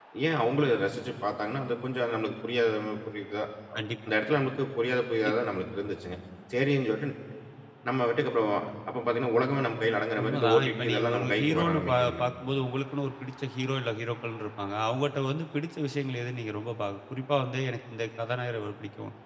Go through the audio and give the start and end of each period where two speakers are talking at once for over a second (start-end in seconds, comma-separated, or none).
10.2-12.2